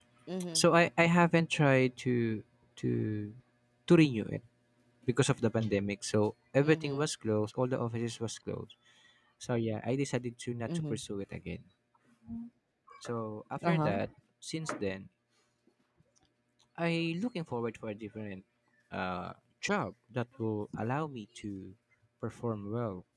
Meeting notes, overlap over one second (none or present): none